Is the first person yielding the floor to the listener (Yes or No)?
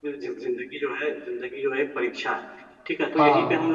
No